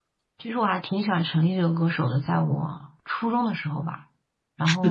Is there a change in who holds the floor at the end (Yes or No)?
Yes